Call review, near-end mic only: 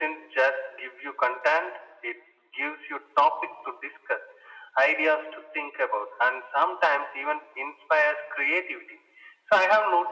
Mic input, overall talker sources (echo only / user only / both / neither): echo only